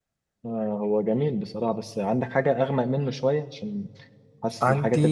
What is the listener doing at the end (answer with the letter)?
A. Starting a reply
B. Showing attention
B